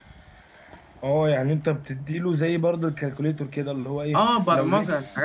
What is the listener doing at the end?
taking over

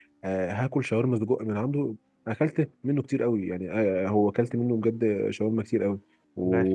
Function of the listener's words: listening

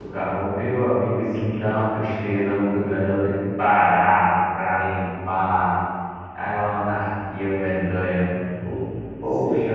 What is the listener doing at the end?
taking over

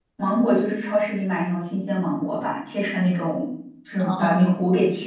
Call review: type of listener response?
listening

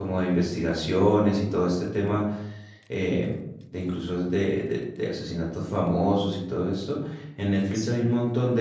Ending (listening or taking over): listening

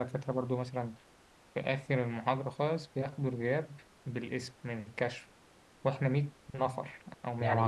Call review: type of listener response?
taking over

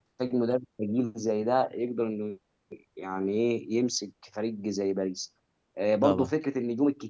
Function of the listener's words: listening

